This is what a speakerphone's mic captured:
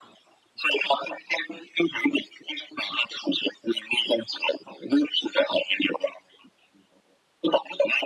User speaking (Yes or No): No